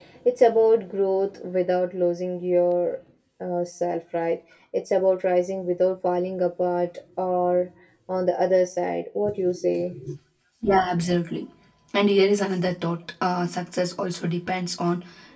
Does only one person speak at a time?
Yes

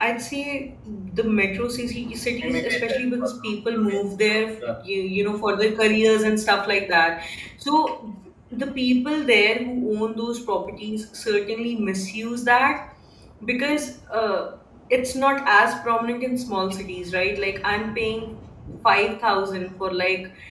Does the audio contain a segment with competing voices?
Yes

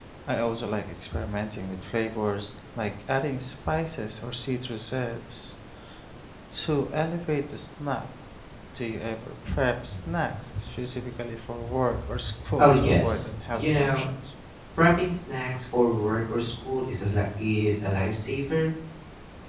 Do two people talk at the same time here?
Yes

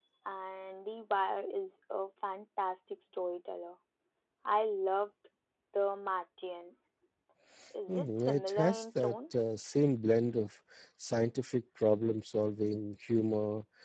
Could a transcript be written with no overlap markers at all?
No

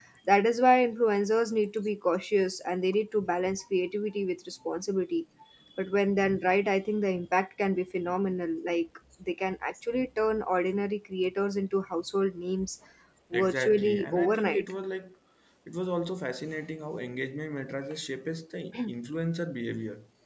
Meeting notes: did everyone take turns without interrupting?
No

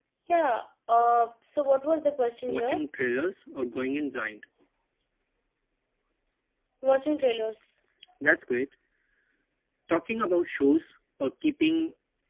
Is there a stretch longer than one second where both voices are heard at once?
No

